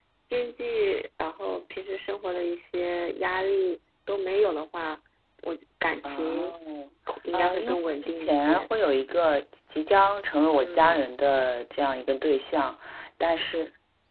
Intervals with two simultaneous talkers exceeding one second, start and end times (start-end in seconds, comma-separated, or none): 7.3-8.7